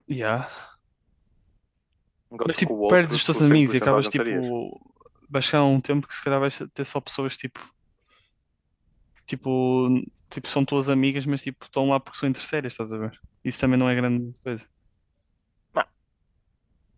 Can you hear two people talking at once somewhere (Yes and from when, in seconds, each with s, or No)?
Yes, from 2.4 s